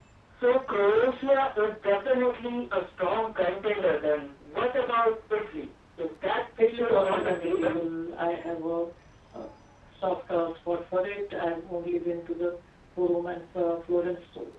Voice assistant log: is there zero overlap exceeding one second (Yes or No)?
No